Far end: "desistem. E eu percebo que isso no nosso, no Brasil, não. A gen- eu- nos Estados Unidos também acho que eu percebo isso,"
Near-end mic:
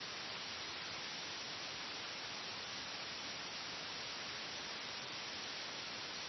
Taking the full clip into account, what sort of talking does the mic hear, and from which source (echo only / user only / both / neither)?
neither